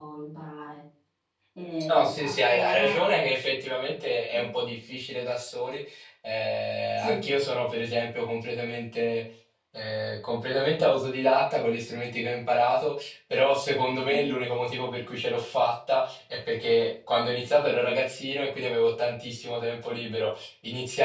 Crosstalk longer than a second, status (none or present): present